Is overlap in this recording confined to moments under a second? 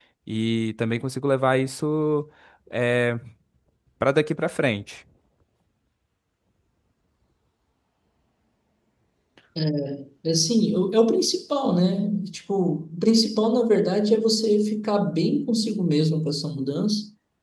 Yes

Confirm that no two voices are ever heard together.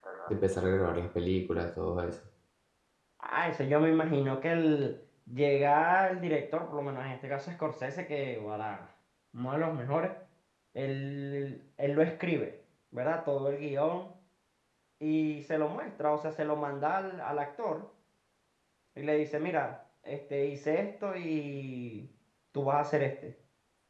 Yes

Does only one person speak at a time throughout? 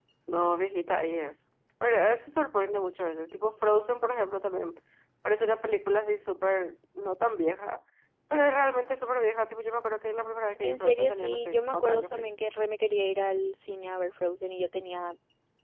No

